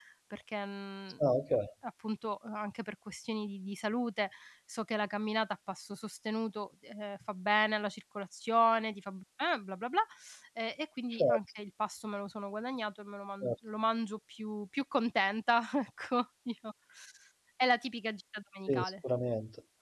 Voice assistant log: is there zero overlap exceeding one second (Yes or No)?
Yes